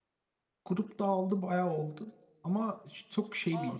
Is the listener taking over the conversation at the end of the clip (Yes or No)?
No